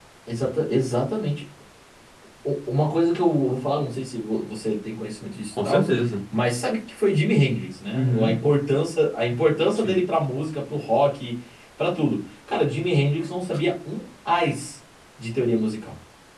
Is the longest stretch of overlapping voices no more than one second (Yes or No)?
Yes